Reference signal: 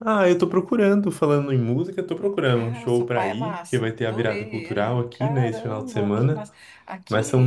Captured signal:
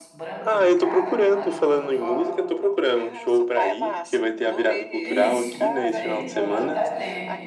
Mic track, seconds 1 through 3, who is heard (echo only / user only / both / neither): both